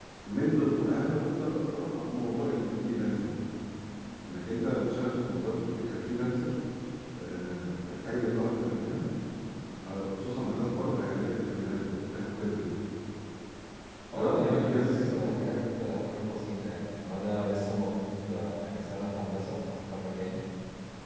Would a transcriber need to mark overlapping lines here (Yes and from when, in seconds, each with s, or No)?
Yes, from 14.1 s